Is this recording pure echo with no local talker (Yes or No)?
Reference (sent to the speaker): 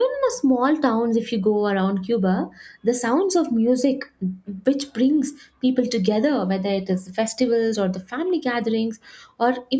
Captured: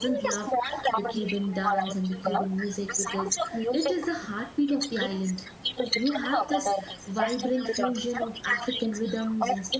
No